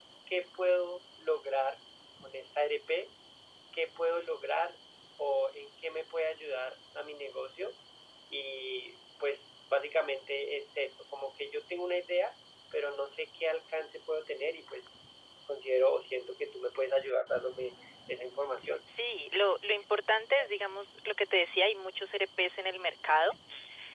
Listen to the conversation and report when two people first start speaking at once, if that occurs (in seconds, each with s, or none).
none